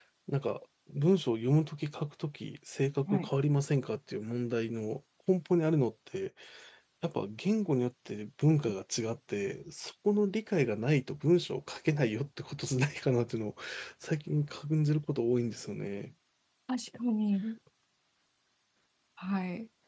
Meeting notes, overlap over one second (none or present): none